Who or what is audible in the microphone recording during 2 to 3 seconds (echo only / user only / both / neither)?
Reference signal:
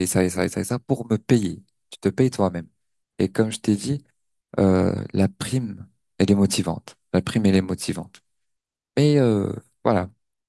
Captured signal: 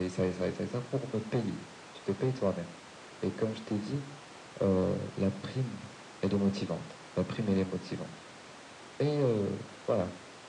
echo only